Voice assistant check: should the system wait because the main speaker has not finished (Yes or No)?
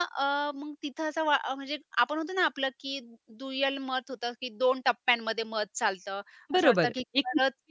No